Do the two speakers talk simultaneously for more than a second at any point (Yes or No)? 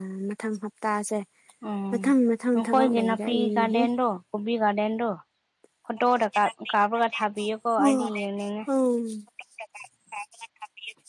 Yes